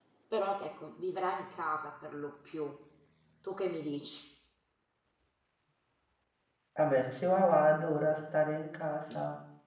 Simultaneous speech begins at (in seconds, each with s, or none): none